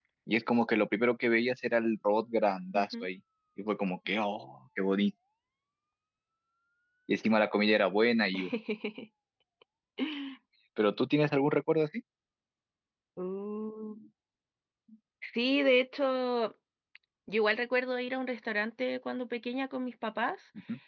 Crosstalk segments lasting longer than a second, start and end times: none

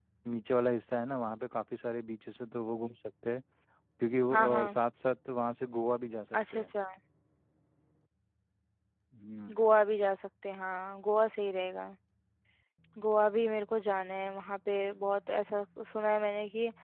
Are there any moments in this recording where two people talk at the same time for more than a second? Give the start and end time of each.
none

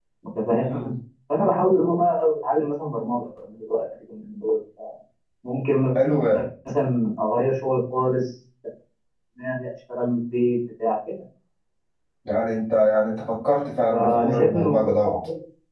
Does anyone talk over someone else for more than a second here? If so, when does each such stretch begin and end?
13.9-15.2

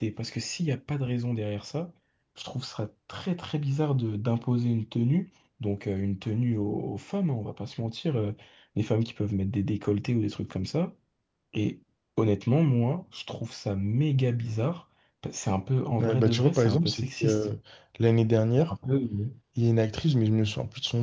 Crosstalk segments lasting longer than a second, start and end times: 16.0-17.5

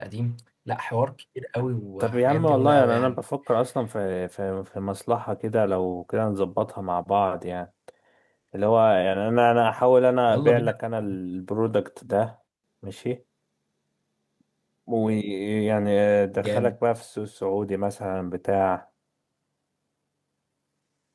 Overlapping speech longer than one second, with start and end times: 2.0-3.2

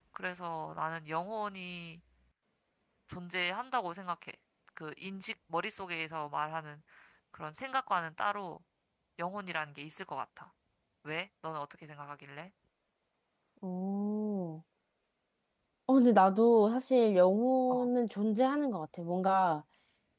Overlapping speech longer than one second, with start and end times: none

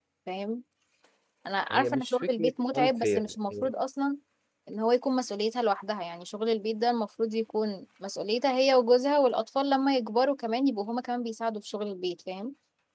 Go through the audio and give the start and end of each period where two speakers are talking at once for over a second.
1.7-3.7

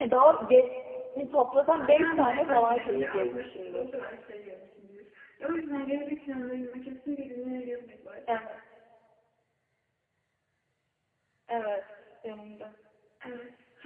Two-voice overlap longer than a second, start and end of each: 1.9-4.0

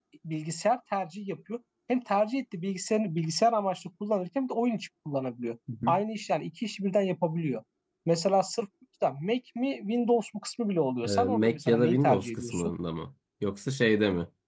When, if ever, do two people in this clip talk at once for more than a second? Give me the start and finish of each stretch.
11.0-12.7

